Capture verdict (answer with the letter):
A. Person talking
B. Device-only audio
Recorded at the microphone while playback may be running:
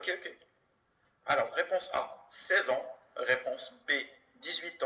B